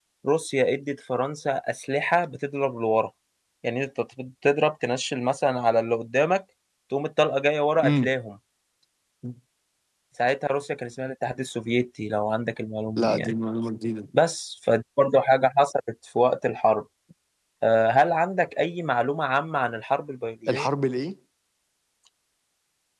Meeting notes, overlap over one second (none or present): none